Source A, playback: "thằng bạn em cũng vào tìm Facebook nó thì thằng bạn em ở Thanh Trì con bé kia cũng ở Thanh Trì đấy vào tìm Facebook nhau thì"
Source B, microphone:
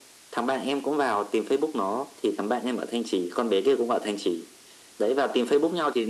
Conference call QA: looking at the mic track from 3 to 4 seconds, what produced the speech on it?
echo only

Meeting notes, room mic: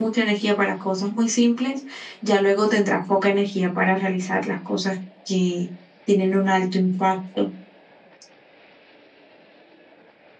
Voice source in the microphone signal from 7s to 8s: user only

